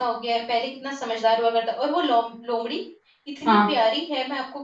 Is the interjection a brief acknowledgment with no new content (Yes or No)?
Yes